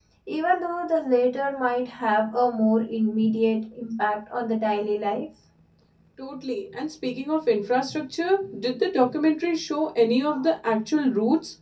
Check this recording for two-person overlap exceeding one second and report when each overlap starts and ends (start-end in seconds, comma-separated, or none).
none